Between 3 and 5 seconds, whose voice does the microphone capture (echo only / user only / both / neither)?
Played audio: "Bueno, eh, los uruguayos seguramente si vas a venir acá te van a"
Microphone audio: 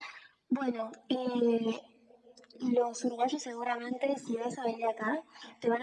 echo only